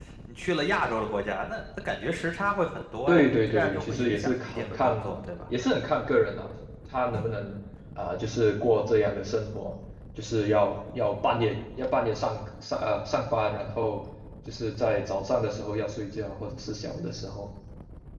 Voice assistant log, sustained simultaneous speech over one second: present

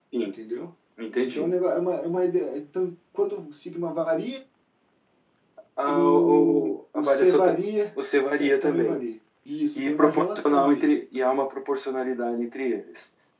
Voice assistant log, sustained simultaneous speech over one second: present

